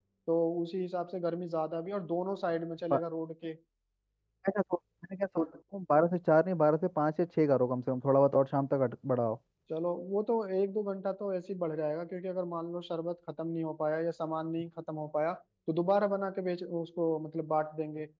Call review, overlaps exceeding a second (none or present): none